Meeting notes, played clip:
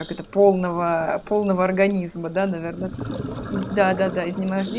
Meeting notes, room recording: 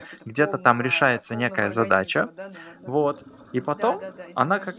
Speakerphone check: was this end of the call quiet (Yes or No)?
No